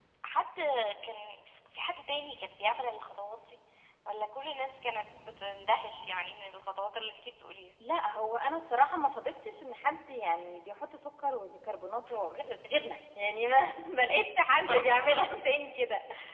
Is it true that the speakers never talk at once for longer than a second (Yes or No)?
Yes